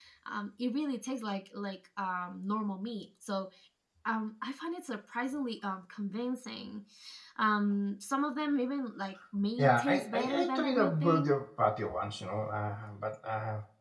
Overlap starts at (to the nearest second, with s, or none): 10 s